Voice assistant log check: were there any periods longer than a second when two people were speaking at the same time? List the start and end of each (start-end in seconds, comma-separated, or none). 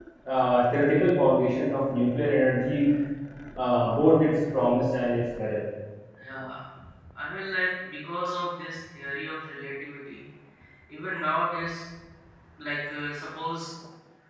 none